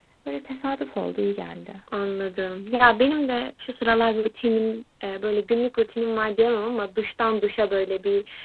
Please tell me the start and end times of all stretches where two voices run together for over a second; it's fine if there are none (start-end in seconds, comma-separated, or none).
none